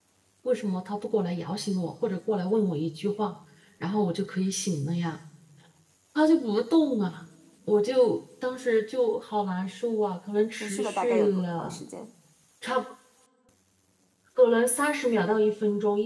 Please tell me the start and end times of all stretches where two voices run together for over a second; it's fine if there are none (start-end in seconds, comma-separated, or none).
10.6-11.8